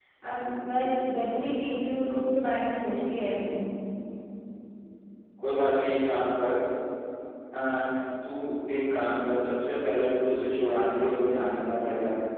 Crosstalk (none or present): none